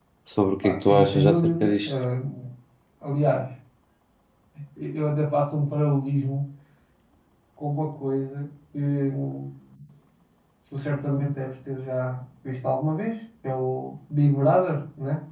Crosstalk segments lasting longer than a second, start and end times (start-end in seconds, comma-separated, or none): 0.6-1.9